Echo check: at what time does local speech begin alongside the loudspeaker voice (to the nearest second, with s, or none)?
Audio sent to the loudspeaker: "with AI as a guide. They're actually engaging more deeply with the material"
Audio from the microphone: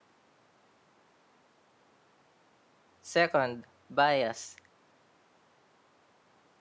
3 s